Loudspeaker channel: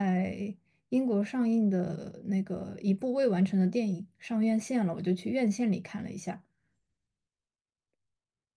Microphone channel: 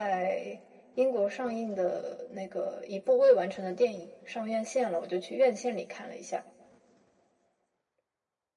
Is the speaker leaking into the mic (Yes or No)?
Yes